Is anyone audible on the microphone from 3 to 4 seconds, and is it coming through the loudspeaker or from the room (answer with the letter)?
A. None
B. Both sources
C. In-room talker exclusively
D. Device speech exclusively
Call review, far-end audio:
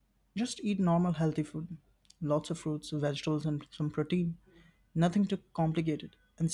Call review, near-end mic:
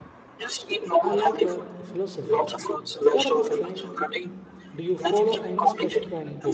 B